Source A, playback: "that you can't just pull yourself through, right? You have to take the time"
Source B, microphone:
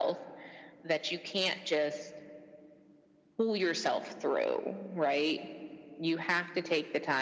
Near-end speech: none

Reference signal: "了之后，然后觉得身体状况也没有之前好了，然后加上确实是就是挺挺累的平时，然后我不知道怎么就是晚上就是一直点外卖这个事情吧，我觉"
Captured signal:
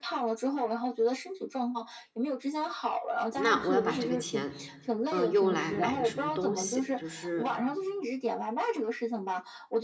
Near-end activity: present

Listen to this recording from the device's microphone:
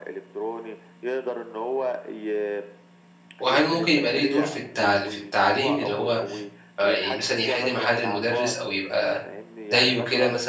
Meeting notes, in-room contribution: present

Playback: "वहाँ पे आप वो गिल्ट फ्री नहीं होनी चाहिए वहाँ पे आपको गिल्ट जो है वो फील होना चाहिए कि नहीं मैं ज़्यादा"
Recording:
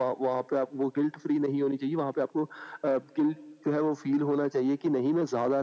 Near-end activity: none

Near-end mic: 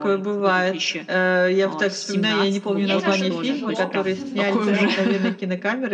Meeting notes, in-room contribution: present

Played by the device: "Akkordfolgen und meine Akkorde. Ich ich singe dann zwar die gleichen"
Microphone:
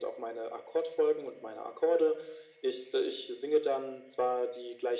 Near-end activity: none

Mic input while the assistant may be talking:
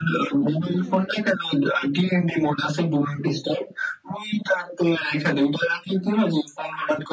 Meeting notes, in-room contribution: present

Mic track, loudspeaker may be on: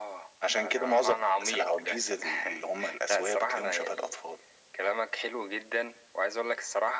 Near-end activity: none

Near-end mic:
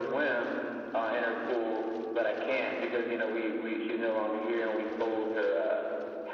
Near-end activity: none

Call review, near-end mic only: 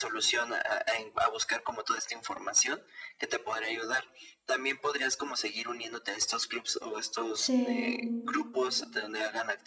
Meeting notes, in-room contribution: present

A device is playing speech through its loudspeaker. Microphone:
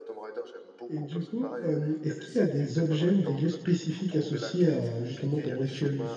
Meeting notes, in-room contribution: present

